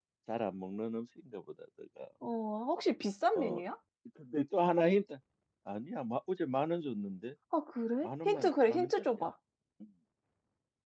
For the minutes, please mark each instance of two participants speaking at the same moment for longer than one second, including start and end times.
8.0-9.3

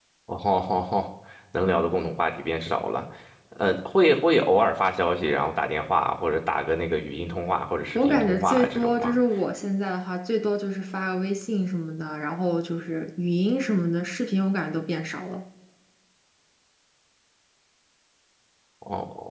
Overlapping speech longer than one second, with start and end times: 8.0-9.2

